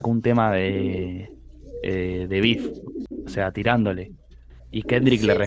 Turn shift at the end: No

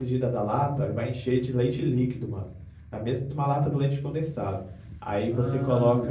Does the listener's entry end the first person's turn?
No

